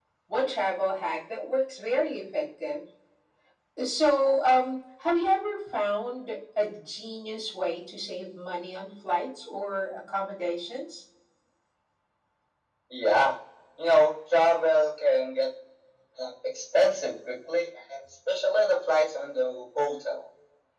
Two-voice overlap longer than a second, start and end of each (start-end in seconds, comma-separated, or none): none